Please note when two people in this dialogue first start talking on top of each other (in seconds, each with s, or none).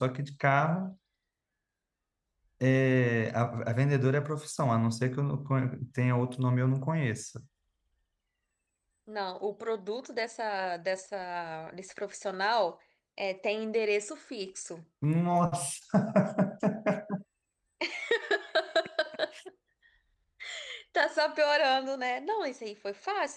none